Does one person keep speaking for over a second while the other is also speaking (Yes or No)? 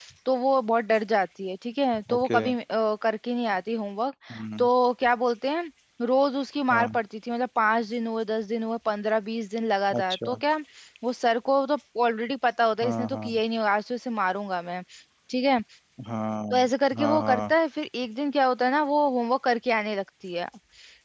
No